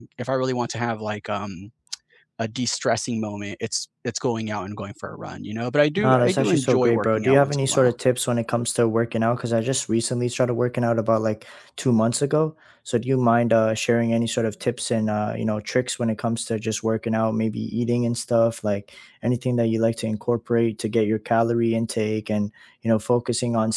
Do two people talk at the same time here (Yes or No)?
Yes